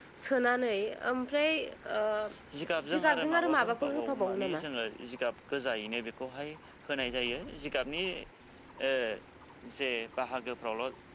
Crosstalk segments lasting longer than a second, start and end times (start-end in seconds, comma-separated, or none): 3.0-4.6